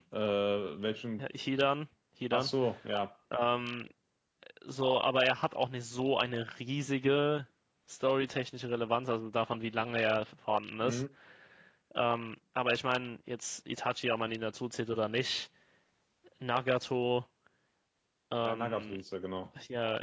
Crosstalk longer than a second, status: none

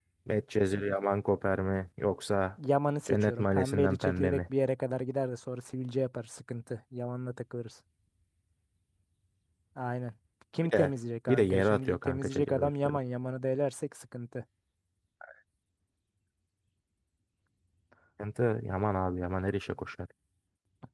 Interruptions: present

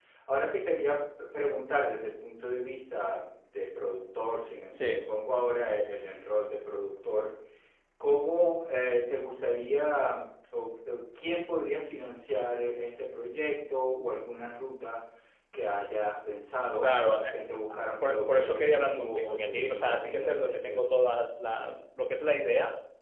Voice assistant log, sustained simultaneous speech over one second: present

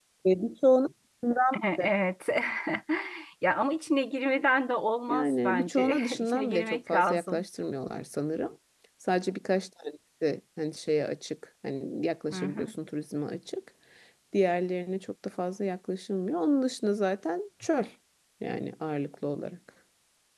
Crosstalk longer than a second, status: present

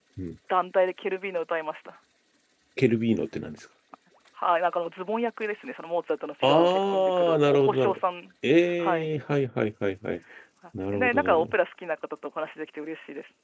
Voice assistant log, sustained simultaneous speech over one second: present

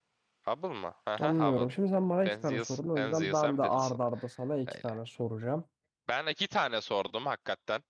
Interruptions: present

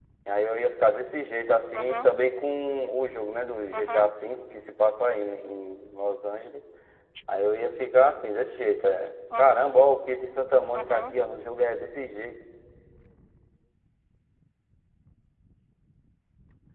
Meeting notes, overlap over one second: none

